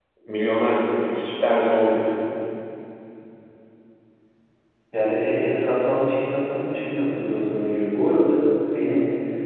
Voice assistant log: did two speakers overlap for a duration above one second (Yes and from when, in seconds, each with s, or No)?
No